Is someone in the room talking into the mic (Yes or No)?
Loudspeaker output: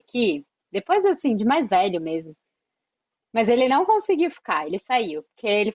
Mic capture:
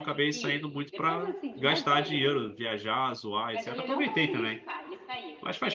Yes